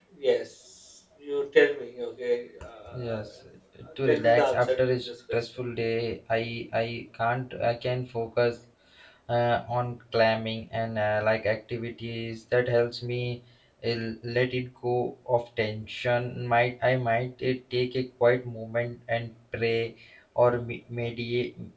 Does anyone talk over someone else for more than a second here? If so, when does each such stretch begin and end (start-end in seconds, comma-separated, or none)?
4.1-5.4